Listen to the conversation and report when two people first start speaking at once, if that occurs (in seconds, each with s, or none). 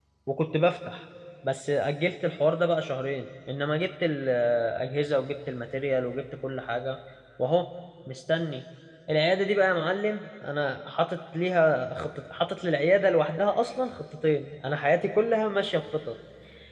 none